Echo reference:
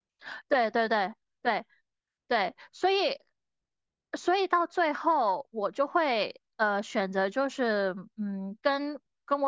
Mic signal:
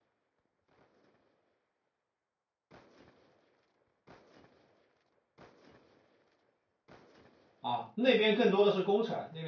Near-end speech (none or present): present